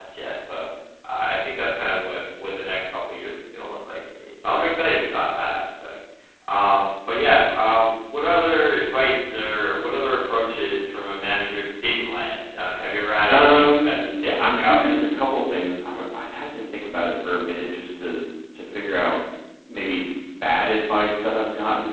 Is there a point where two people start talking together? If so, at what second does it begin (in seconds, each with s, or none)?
13.3 s